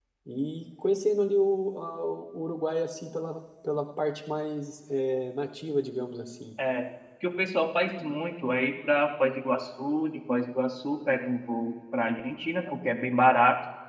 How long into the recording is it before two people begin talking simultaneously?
none

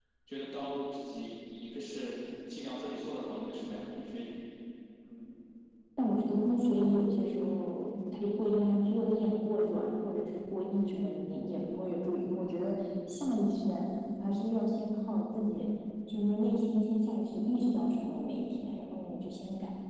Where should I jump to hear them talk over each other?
none

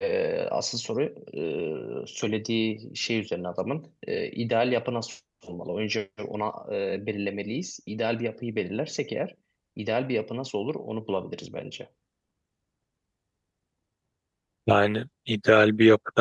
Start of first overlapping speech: none

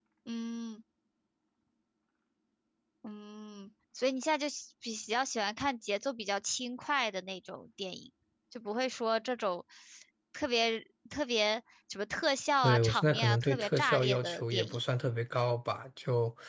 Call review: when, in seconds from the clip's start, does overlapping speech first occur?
12.6 s

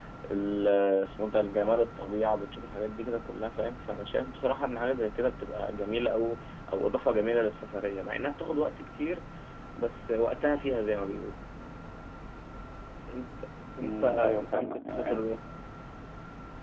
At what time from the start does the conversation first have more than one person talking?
13.8 s

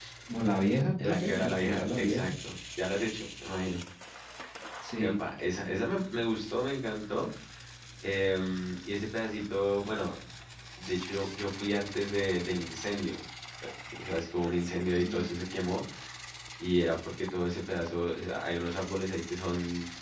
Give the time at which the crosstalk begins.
1.0 s

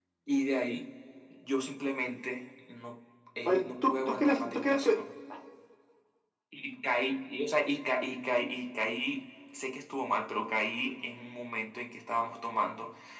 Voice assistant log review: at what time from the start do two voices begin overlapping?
3.5 s

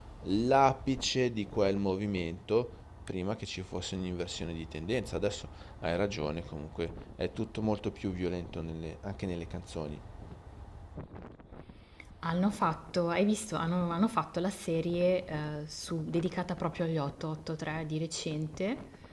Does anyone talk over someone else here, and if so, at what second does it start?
none

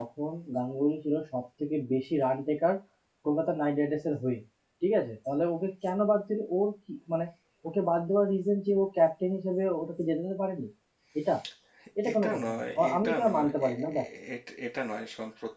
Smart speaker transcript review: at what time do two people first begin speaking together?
12.1 s

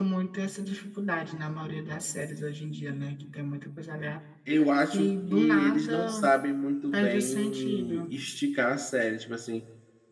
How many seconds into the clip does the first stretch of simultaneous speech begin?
4.9 s

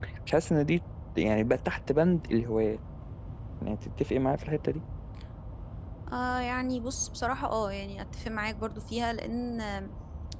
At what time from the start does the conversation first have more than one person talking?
none

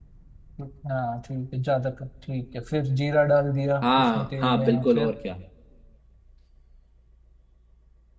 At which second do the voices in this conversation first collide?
3.8 s

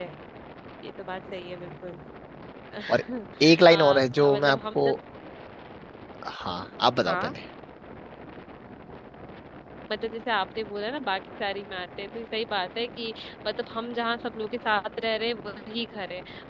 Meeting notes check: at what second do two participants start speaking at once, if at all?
3.7 s

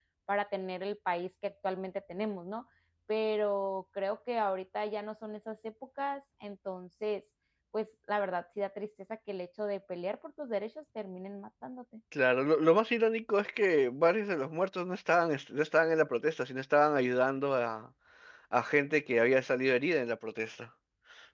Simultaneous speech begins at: none

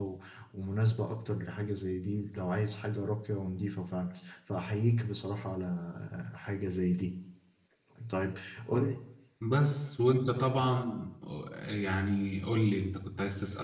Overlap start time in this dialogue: none

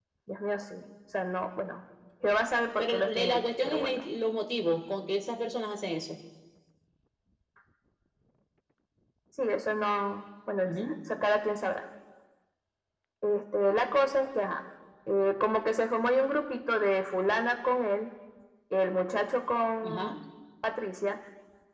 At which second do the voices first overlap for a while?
2.8 s

